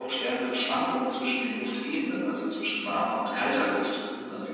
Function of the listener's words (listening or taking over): taking over